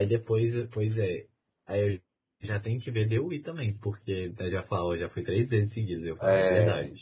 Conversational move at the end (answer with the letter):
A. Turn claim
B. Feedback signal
A